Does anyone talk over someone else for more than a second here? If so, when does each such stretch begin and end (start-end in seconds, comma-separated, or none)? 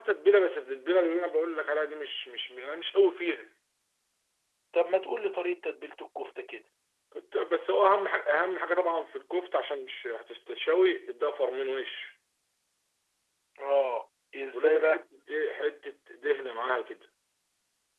none